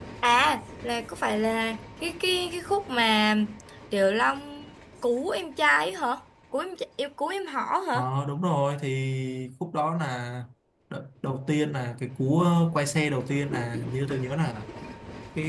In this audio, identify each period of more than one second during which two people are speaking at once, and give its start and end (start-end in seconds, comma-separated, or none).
none